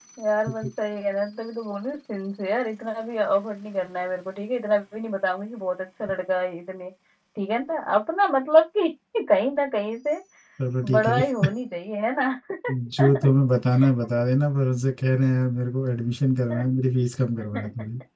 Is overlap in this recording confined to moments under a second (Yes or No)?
Yes